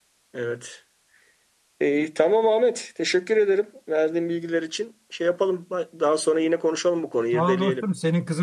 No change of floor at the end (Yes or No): No